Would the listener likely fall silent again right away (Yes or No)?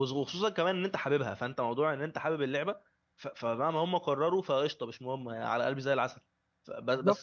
No